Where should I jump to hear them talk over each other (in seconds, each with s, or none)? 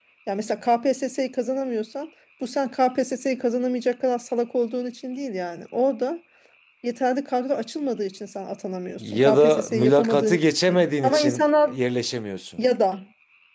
9.0 s